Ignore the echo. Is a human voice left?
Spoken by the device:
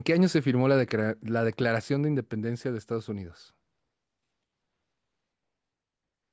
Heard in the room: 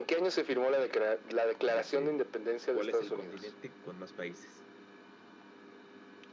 Yes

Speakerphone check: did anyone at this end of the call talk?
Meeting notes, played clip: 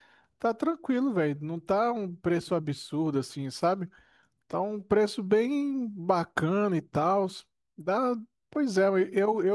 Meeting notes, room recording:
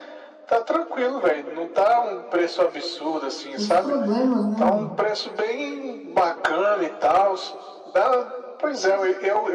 Yes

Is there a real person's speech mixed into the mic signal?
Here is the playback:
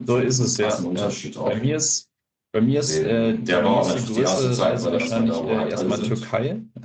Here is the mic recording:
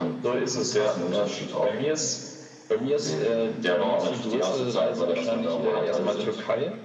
No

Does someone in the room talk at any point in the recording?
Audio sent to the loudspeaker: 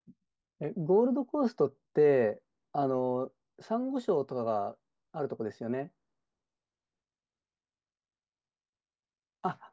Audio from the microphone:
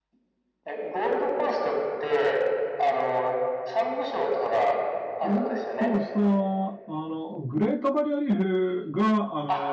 Yes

